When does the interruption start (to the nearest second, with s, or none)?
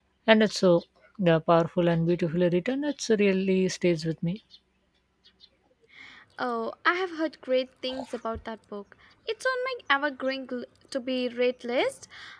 none